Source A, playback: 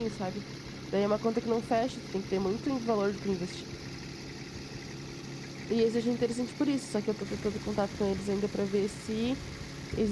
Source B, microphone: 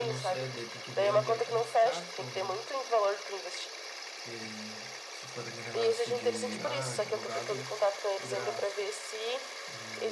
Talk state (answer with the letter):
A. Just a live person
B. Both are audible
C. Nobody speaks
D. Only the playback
B